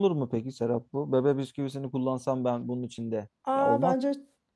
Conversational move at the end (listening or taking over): taking over